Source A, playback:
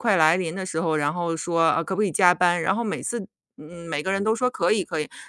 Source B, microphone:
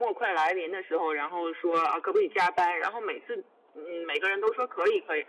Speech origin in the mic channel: echo only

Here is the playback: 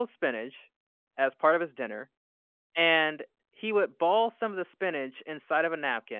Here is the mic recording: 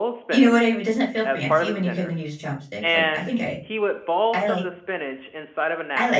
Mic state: both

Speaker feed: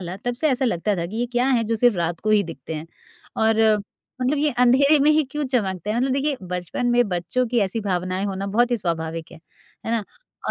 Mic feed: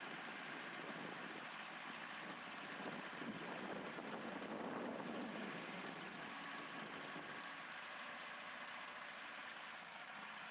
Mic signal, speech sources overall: neither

